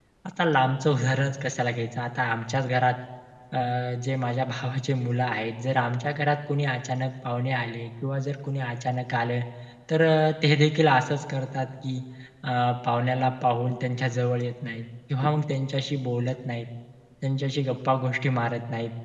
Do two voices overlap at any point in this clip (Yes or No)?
No